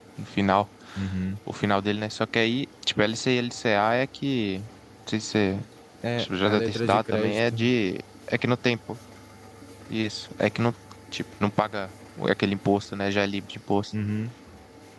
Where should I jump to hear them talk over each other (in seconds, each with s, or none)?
6.2 s